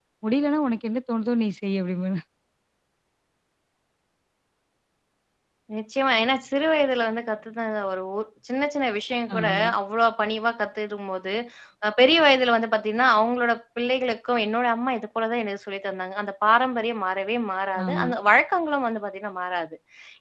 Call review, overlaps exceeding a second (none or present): none